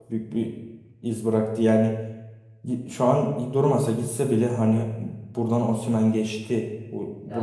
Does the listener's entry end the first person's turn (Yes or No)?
Yes